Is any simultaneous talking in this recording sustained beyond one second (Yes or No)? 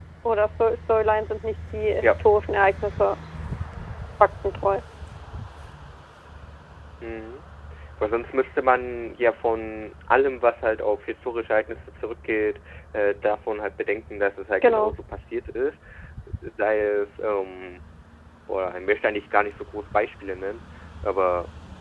No